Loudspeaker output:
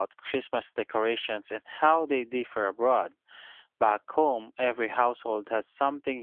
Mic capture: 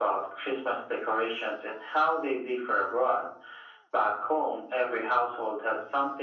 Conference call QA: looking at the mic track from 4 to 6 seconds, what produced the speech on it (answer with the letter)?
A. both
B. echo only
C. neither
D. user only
B